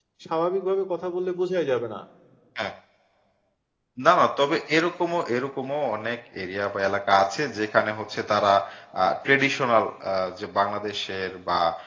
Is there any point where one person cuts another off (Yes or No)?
No